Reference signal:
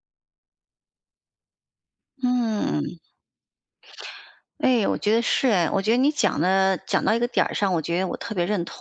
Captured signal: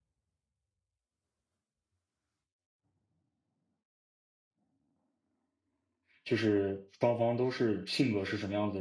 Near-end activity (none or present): present